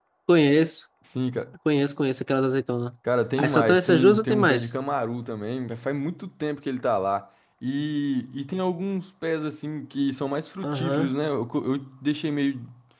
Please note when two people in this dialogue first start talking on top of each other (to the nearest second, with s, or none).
3 s